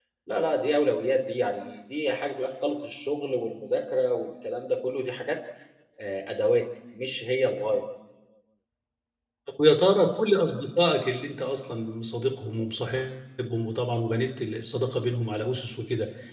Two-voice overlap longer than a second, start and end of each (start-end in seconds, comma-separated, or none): none